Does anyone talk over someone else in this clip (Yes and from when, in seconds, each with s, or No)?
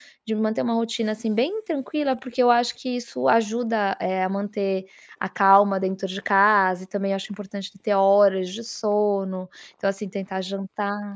No